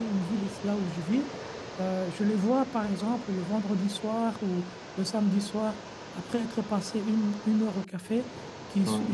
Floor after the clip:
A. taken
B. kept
B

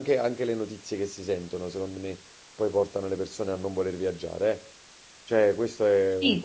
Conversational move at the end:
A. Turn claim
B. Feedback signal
A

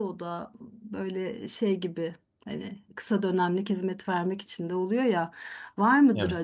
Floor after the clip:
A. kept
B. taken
A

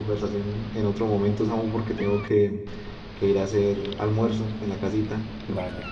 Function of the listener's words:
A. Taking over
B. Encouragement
A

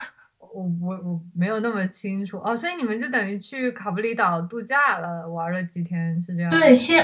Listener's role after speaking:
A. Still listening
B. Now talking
B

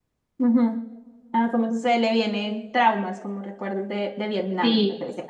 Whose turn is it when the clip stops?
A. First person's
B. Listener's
B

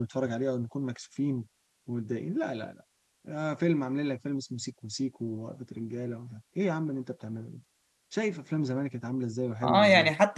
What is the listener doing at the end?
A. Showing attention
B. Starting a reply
B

